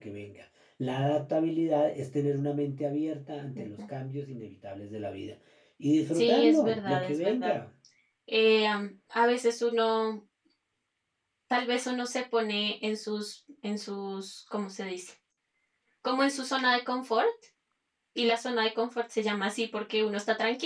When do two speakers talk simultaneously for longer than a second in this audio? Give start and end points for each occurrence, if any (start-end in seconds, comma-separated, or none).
6.1-7.5